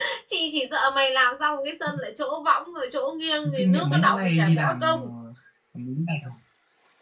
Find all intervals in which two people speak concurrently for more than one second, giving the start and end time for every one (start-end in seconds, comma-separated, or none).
3.4-5.1